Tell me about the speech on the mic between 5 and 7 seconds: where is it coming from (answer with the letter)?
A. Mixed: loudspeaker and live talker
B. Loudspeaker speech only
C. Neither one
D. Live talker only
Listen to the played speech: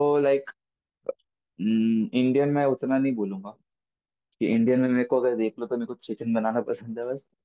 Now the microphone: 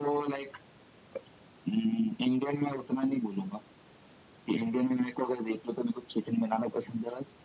B